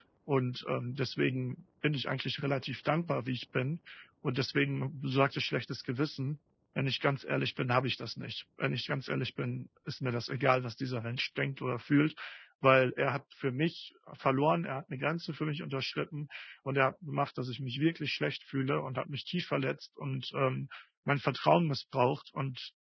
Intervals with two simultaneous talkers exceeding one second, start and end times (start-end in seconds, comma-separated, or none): none